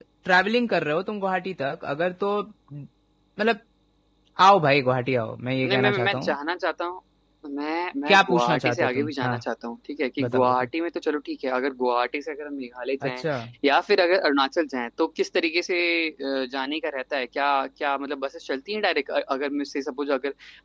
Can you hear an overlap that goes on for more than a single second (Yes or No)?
Yes